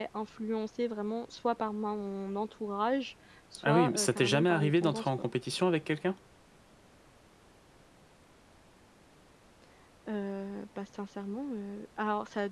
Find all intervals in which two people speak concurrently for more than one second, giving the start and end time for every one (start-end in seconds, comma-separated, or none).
3.6-5.3